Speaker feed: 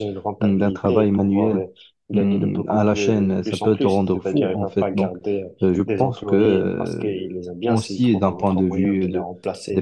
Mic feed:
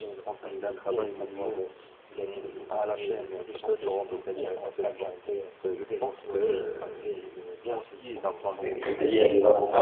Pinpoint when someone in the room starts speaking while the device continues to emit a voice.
9 s

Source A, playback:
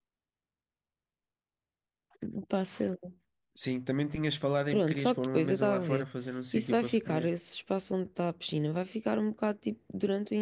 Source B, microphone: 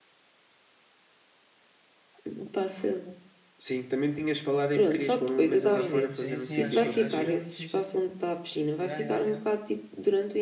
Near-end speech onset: 6 s

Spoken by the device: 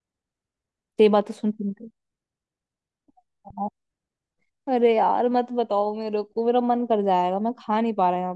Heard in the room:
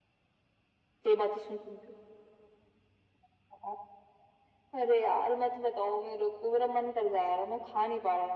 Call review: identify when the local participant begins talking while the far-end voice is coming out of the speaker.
none

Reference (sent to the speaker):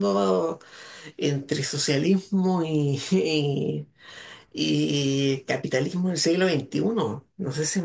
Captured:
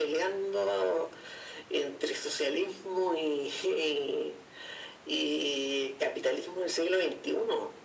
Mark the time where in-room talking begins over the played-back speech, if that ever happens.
none

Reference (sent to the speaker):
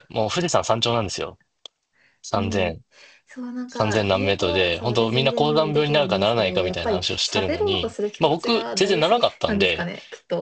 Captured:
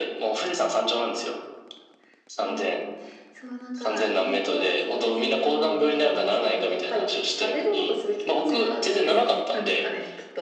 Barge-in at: 8 s

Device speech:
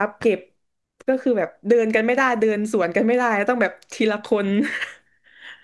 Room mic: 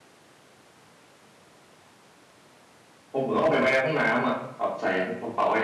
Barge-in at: 3 s

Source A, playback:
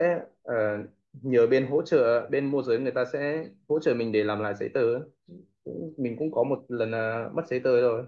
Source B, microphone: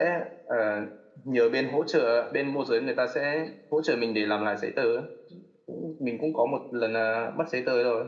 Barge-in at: none

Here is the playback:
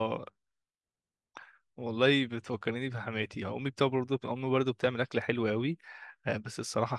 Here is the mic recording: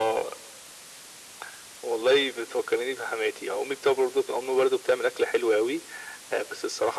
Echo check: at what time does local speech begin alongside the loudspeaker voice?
none

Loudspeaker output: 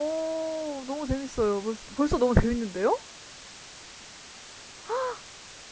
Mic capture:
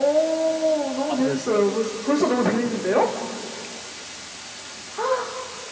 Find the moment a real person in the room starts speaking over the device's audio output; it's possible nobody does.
1 s

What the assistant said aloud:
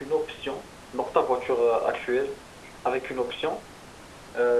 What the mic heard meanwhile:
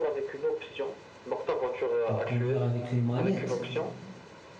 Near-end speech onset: 2 s

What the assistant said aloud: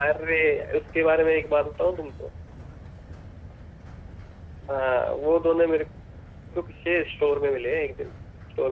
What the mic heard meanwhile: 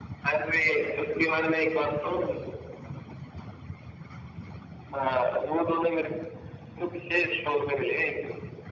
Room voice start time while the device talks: none

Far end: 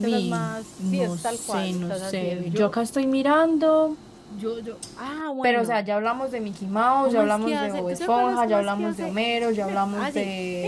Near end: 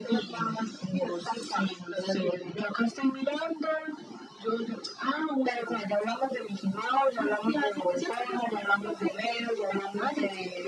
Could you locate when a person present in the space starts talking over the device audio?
none

